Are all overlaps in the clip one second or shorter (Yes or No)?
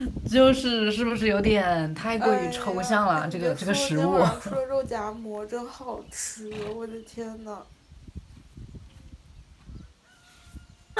No